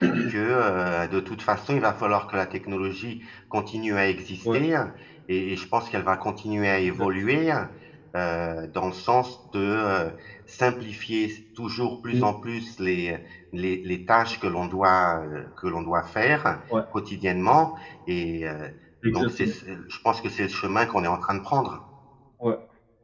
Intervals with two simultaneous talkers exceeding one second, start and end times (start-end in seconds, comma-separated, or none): none